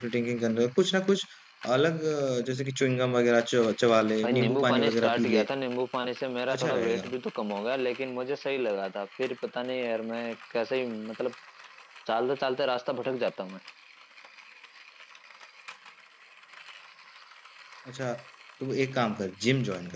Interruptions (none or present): present